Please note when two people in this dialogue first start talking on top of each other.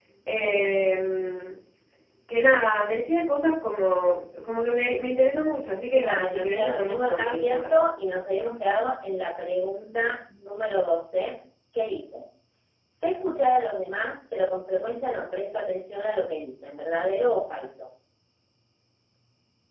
5.9 s

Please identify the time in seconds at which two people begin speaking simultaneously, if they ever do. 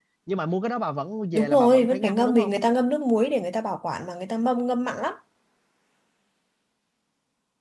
1.3 s

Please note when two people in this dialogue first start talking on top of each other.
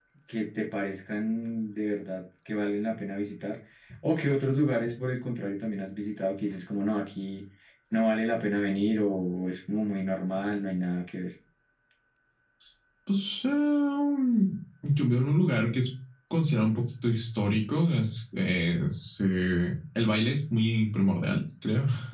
none

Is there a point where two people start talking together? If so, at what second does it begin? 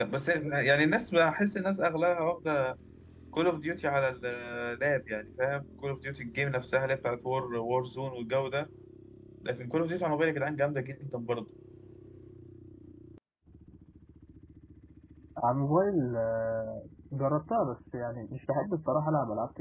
none

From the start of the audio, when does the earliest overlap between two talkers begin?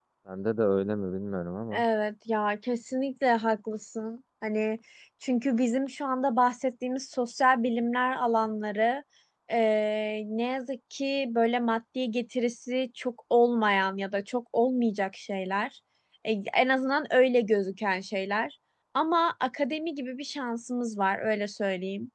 none

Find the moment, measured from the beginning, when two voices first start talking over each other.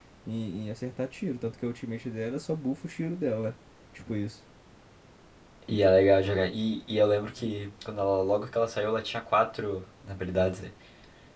none

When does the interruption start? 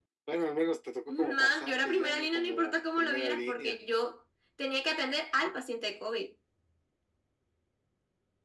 1.1 s

